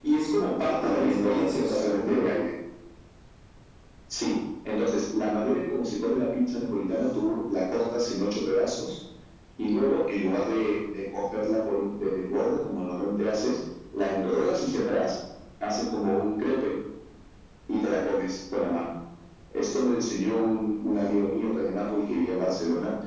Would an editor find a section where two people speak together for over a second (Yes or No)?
Yes